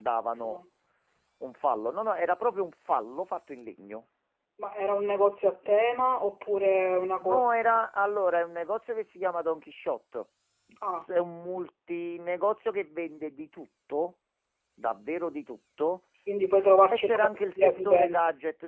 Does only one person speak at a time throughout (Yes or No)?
No